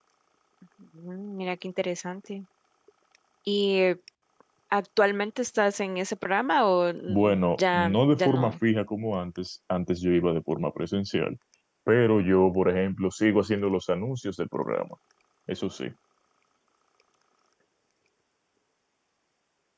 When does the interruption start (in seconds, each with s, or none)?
7.1 s